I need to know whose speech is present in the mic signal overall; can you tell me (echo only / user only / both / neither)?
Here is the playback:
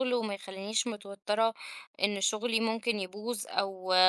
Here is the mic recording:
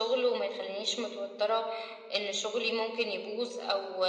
echo only